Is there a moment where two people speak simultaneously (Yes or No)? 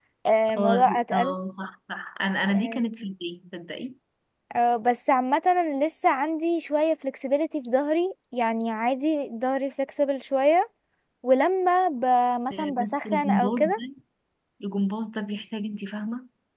Yes